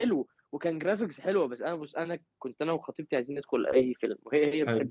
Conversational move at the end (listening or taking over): listening